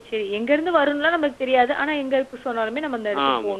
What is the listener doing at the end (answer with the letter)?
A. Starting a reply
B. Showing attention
A